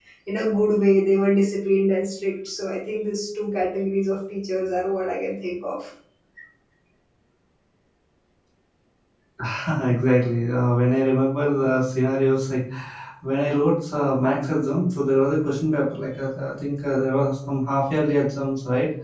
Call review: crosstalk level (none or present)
none